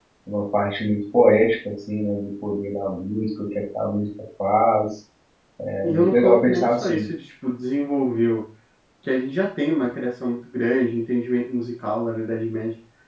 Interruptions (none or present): present